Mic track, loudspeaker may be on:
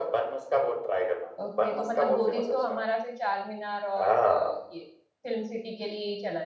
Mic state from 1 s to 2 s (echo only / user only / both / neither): both